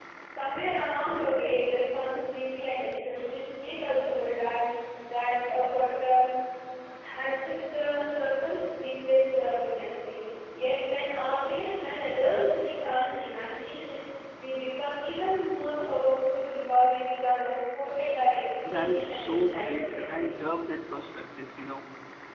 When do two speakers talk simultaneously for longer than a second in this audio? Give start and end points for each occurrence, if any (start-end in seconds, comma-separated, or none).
18.7-20.3